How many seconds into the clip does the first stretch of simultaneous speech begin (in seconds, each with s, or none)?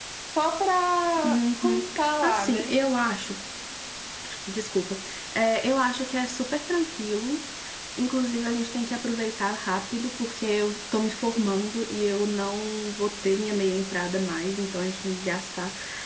1.2 s